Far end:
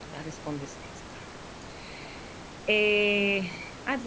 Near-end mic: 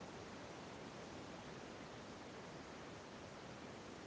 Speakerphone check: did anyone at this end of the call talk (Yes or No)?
No